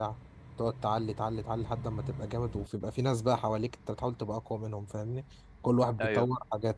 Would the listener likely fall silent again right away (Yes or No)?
Yes